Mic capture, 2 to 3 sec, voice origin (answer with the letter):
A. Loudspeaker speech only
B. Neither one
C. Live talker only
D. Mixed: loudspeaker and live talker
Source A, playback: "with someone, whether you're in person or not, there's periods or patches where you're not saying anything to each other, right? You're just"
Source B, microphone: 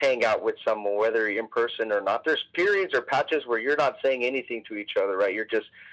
A